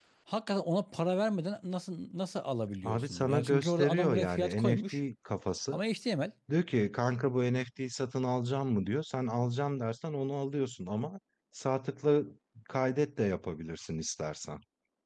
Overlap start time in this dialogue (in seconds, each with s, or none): 2.8 s